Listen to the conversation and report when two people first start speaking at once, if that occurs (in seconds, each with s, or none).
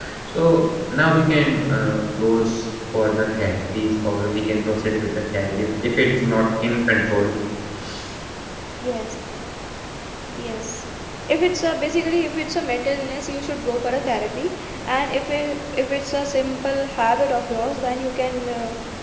none